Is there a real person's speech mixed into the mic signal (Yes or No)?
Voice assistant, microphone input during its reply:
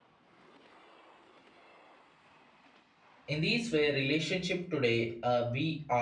Yes